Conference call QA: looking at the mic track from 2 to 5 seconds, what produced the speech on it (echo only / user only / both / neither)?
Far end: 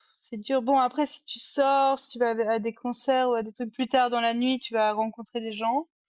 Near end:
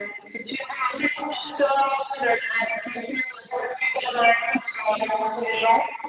echo only